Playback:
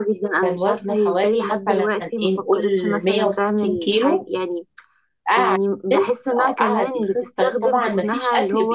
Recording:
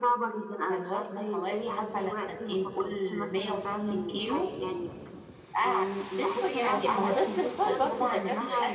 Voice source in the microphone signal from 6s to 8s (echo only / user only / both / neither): both